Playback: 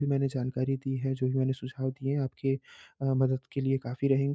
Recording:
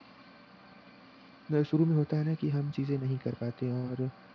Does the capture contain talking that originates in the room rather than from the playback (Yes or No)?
Yes